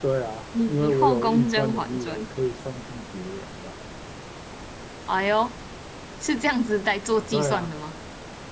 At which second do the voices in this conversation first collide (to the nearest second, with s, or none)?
1 s